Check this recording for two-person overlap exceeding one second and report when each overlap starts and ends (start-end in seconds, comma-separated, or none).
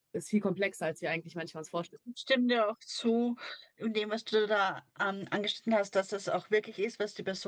none